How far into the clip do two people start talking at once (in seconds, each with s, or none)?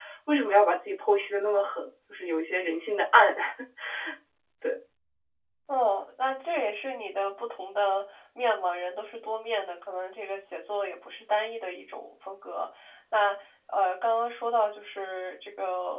none